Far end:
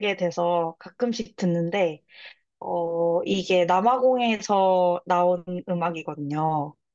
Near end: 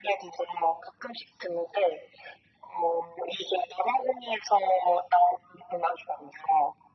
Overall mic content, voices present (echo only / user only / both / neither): echo only